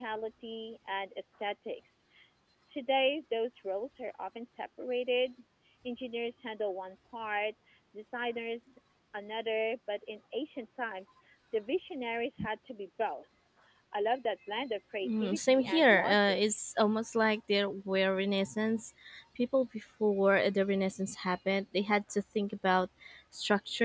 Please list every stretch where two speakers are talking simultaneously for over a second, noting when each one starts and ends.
15.0-16.4

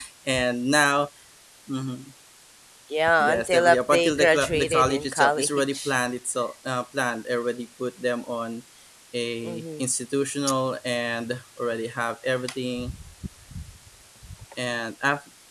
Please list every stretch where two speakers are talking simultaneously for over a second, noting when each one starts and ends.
3.2-5.9

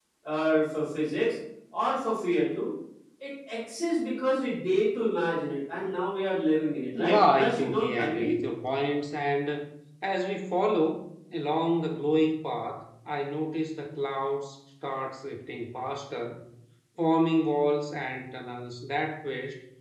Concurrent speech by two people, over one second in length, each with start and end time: 7.0-8.3

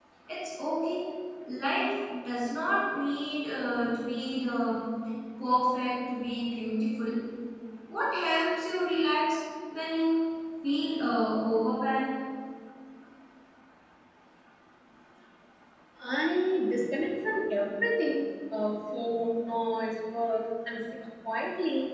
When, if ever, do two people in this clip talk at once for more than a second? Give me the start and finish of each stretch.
none

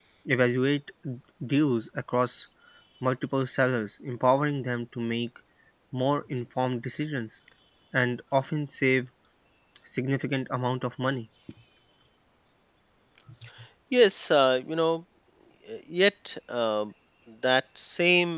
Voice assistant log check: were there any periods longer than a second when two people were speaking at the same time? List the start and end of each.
none

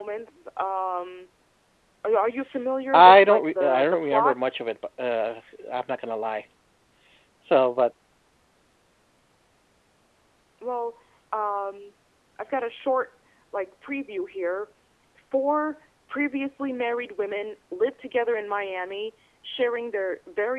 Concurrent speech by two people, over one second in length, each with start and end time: 2.9-4.4

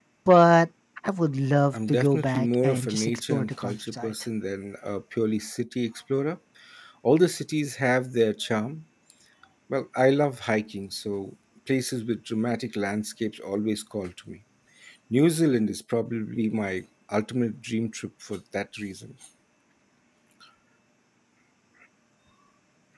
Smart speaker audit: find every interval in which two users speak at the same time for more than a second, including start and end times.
1.7-4.1

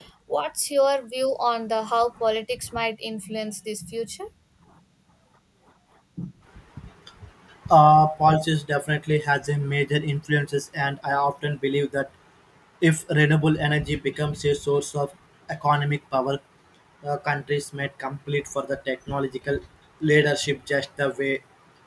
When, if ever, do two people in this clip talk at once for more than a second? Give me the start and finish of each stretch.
none

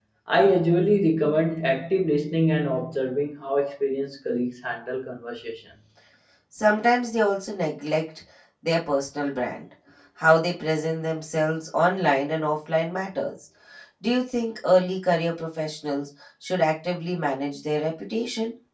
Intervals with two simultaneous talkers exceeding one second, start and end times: none

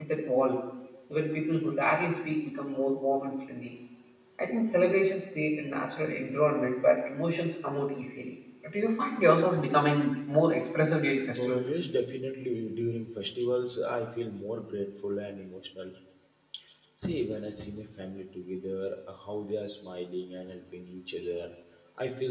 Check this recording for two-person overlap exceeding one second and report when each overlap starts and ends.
none

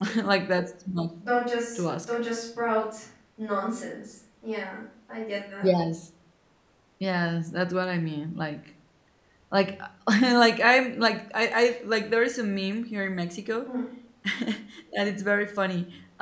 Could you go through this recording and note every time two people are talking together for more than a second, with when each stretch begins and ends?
none

